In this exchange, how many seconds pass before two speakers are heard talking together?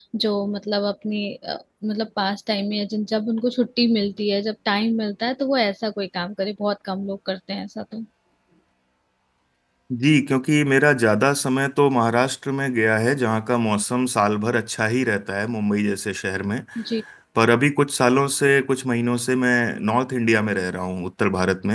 none

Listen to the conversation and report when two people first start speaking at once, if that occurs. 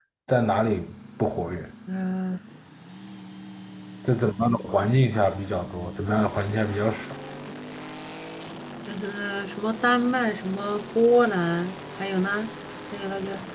none

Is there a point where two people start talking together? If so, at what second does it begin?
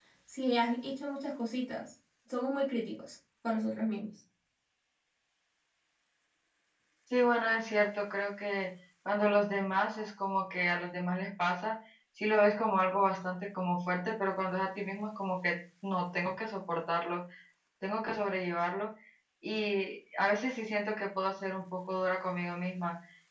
none

